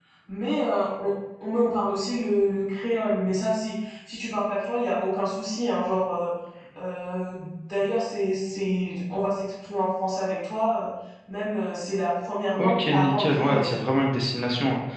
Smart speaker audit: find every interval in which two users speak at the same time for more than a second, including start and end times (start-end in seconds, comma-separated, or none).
12.6-13.9